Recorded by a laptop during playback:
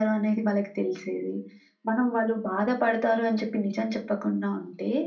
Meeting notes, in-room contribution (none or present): none